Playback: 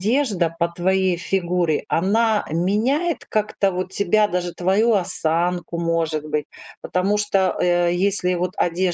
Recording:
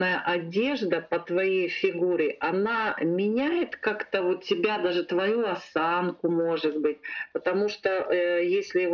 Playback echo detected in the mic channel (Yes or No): Yes